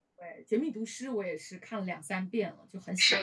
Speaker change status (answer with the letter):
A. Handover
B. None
A